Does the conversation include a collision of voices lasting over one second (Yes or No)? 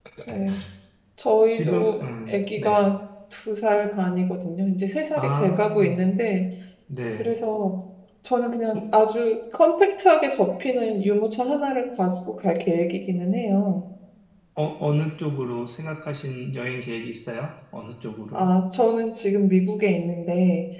Yes